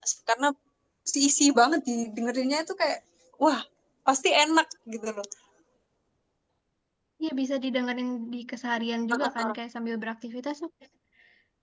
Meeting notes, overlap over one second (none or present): none